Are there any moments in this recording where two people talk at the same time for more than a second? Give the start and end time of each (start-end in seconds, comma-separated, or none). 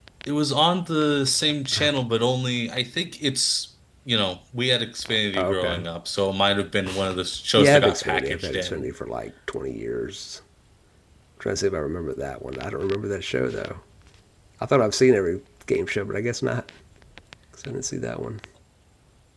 7.6-8.9